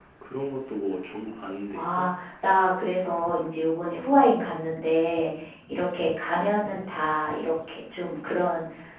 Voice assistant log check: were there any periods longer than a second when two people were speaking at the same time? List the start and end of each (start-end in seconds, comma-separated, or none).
none